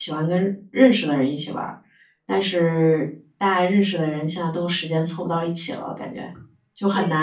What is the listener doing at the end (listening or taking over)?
listening